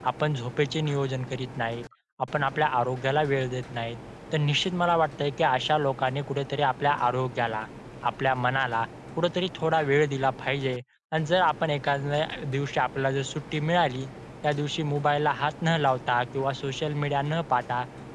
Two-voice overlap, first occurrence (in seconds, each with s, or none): none